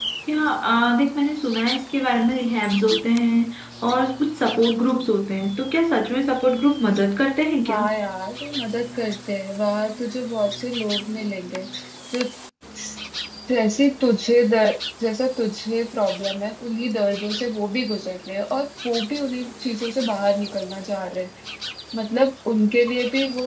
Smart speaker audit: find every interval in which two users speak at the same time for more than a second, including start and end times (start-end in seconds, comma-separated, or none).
none